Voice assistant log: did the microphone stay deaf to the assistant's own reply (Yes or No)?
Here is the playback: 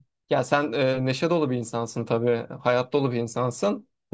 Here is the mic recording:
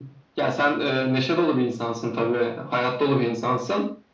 No